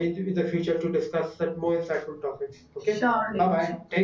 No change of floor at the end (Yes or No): No